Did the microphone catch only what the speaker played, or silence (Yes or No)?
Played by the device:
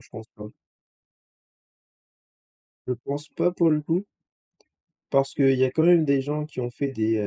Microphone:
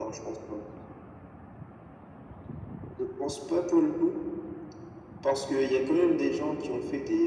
Yes